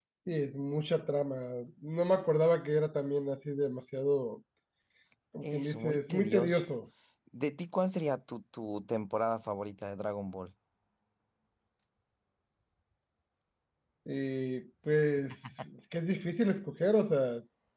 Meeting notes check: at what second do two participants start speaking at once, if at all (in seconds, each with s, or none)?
5.4 s